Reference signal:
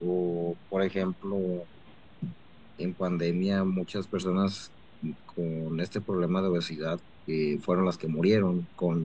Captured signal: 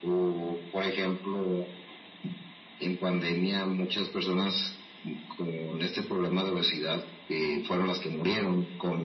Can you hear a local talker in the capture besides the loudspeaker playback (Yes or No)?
No